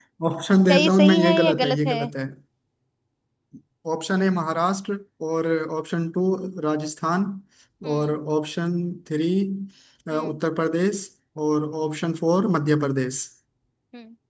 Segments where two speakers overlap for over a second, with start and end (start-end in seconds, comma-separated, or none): 0.7-2.0